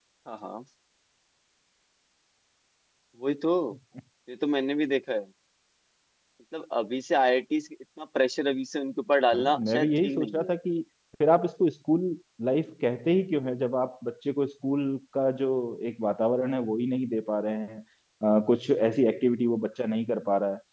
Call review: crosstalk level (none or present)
present